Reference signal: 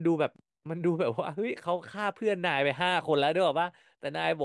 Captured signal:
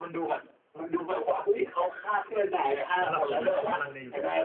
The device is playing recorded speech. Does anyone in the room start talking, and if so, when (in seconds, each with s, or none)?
3.0 s